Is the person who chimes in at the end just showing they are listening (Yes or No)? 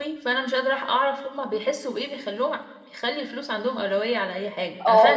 No